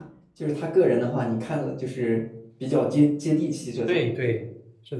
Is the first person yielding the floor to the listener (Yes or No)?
Yes